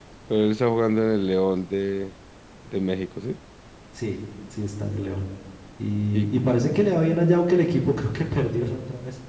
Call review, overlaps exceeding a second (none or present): none